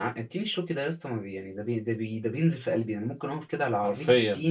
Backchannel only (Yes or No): Yes